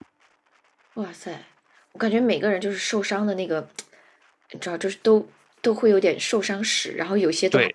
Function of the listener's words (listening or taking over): taking over